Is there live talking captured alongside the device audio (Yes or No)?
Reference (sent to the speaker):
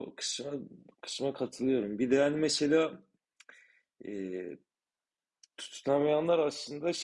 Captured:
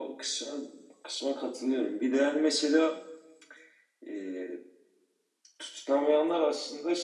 No